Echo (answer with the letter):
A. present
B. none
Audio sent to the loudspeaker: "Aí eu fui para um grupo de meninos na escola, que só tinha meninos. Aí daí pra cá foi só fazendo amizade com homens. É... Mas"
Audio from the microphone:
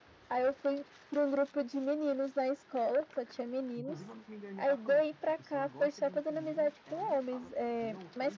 A